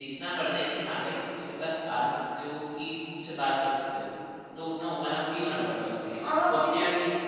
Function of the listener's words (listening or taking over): taking over